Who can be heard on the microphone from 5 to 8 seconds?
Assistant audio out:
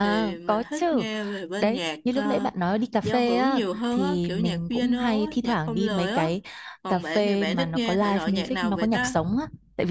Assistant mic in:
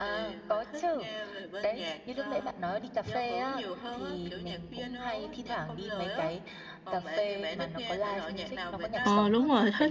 echo only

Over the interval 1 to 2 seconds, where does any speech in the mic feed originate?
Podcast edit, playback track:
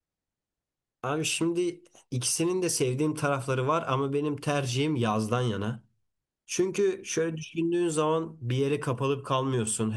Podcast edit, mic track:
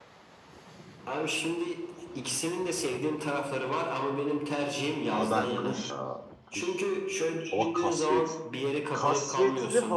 echo only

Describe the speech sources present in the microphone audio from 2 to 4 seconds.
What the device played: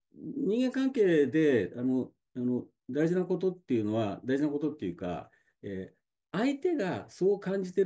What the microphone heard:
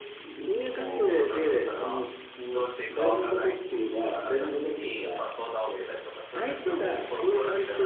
both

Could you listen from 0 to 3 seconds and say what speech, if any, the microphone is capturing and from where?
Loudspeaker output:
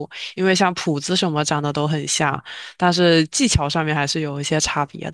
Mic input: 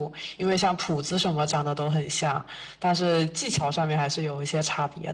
echo only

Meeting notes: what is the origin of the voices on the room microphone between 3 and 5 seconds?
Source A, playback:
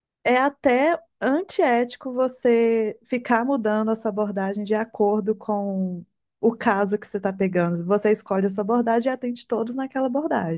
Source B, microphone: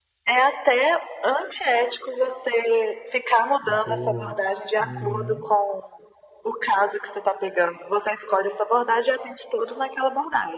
both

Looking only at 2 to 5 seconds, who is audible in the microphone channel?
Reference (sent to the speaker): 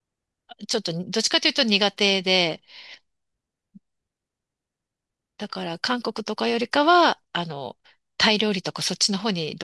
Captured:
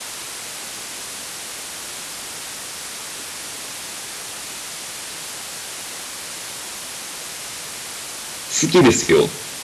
neither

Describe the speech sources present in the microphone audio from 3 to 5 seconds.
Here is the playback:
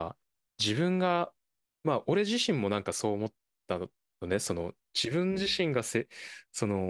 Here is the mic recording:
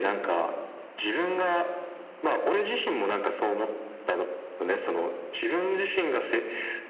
echo only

